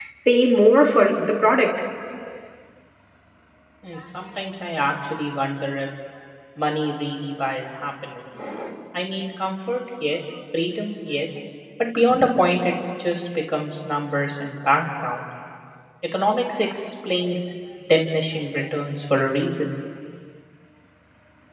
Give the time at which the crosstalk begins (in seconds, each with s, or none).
none